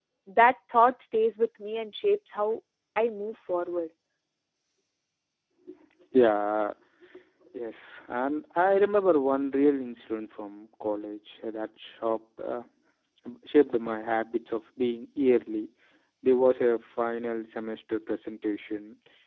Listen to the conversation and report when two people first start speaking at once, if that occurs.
none

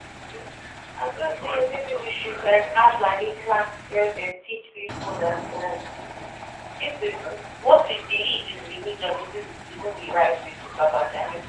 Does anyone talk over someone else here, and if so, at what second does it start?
0.9 s

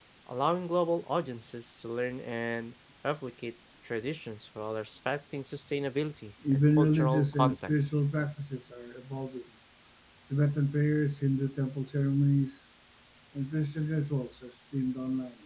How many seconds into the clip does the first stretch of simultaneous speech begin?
6.4 s

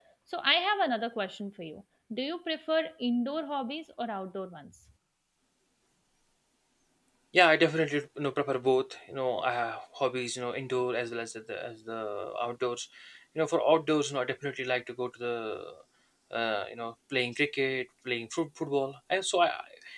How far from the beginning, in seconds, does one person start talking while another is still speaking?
none

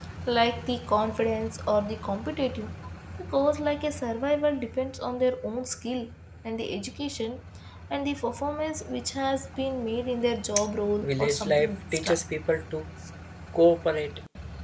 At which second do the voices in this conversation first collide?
11.0 s

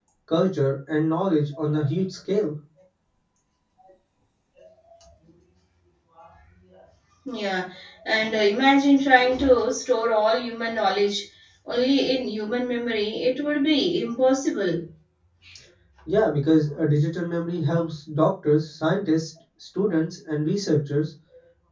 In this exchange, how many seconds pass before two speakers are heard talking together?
none

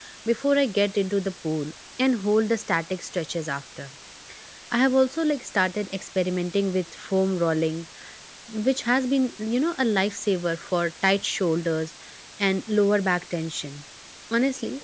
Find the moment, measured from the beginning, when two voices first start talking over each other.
none

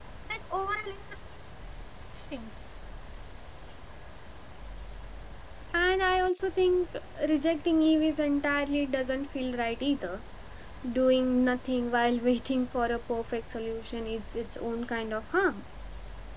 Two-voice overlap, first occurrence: none

